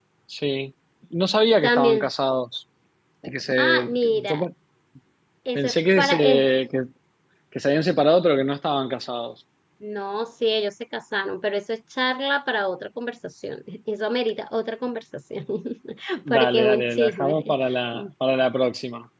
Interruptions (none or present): present